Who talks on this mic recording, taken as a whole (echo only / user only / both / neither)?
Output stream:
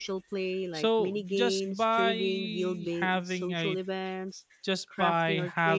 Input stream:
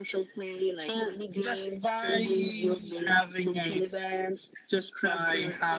echo only